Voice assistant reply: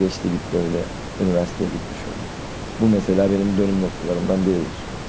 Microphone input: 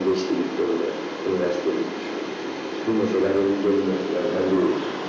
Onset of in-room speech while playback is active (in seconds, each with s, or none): none